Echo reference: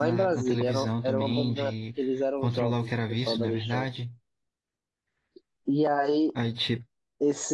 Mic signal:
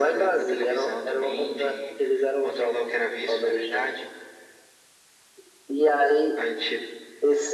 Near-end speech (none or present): none